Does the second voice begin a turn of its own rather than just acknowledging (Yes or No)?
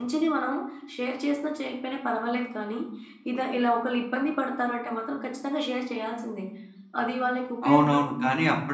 Yes